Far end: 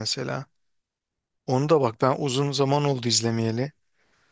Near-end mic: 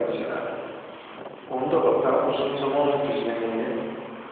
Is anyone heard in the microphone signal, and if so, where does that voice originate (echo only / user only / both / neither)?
echo only